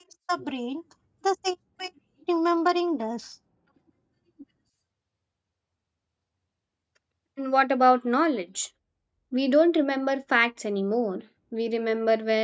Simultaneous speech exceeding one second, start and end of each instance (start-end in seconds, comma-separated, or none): none